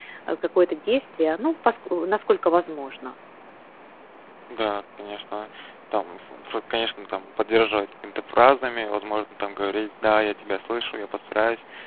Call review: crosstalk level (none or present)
none